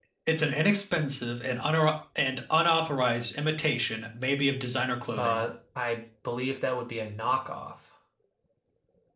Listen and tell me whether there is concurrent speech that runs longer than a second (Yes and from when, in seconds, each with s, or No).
No